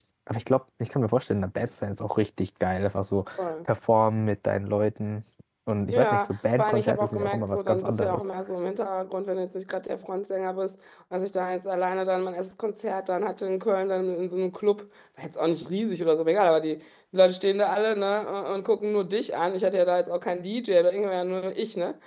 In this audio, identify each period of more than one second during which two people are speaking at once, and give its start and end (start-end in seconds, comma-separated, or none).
5.9-8.2